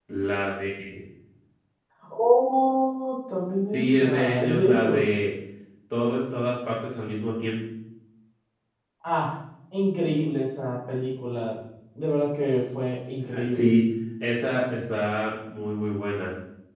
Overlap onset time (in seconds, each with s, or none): 3.7 s